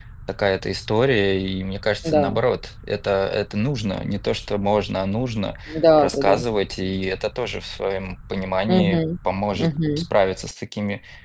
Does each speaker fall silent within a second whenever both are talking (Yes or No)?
Yes